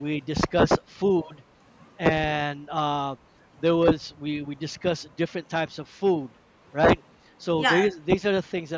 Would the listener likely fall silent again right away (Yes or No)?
Yes